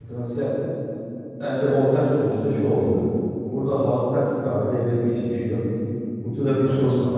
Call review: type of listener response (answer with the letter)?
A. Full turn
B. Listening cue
B